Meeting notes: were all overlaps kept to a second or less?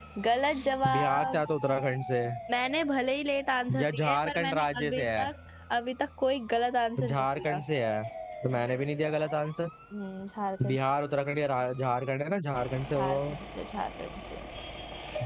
No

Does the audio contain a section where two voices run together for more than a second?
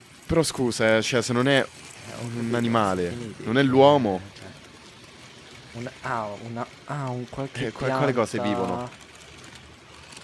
Yes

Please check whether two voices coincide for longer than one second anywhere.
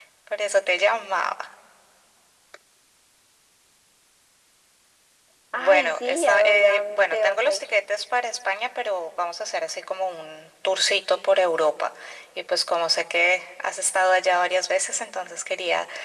Yes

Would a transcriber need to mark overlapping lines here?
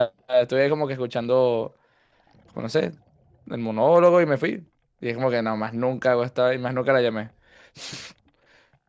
No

